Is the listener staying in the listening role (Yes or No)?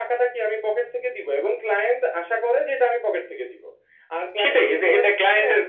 No